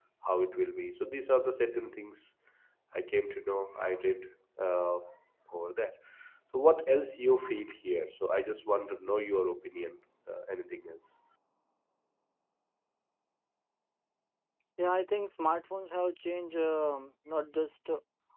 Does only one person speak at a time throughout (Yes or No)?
Yes